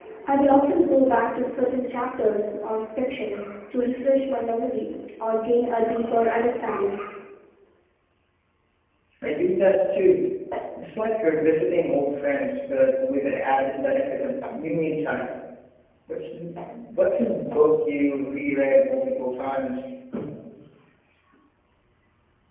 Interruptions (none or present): none